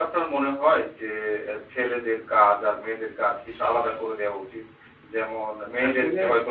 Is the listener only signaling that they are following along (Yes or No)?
Yes